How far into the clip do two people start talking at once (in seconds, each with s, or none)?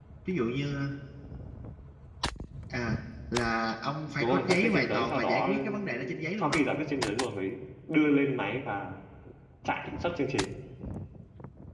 4.2 s